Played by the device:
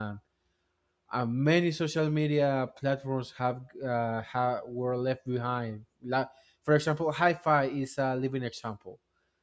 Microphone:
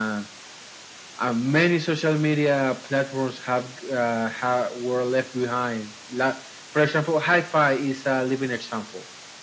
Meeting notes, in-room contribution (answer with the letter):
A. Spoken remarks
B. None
B